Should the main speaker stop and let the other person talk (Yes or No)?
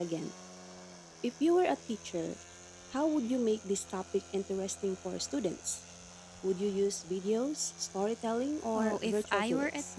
Yes